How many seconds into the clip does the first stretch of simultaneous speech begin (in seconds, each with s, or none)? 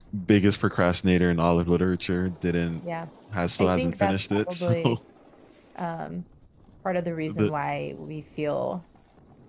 3.6 s